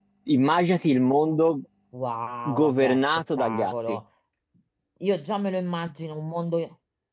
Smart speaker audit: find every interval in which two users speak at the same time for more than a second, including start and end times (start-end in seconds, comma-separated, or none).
2.5-4.0